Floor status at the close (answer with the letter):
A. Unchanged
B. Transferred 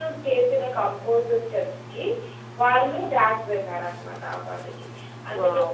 B